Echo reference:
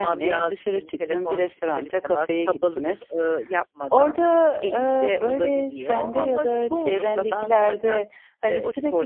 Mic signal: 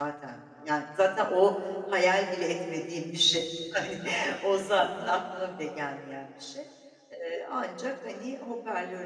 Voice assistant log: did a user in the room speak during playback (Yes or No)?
Yes